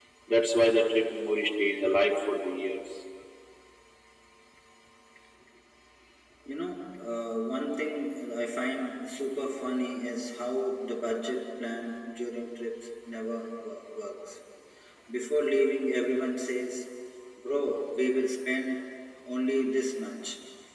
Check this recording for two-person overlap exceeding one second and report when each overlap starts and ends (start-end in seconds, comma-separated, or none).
none